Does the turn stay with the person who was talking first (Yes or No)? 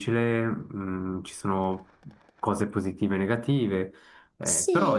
No